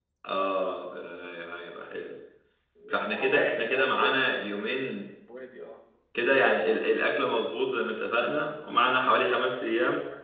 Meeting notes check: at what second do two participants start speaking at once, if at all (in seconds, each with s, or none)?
2.9 s